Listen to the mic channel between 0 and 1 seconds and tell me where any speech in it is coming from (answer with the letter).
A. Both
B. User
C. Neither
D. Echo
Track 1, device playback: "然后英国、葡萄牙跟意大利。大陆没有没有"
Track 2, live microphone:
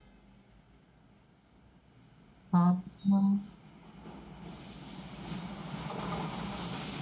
C